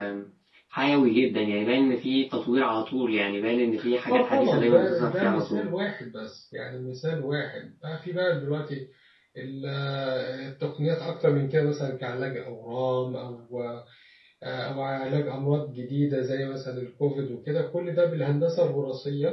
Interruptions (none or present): present